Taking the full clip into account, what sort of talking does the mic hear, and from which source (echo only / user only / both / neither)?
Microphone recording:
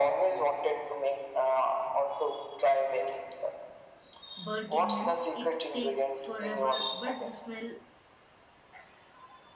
both